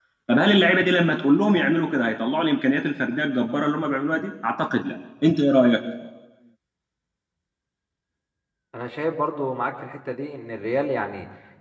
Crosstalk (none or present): none